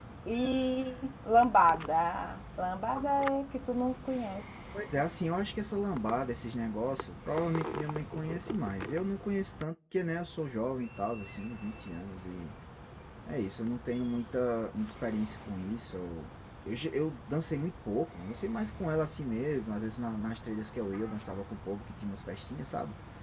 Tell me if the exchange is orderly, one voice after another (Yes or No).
Yes